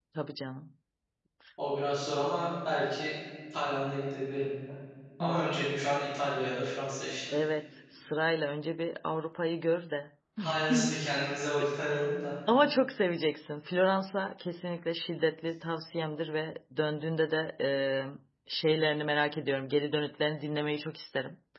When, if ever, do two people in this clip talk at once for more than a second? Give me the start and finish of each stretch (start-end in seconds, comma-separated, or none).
none